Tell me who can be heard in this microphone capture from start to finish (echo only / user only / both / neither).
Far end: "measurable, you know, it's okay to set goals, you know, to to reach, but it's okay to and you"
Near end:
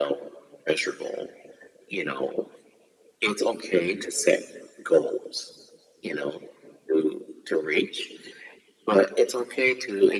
echo only